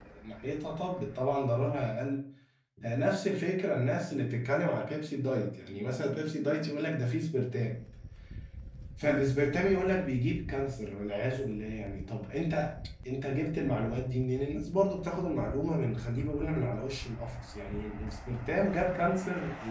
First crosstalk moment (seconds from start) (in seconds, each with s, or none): none